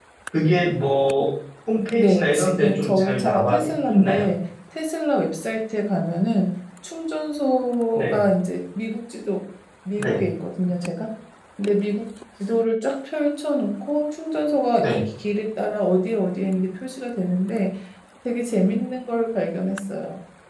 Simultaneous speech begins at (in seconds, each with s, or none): 2.0 s